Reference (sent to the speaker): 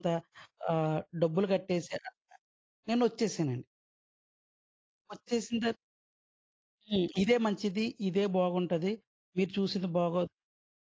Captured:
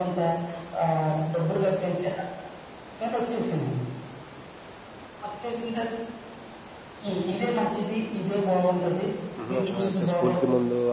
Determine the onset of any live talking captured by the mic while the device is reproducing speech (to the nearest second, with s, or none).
9 s